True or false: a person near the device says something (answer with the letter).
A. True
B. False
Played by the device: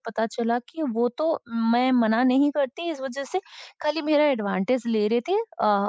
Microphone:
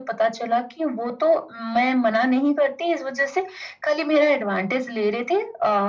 B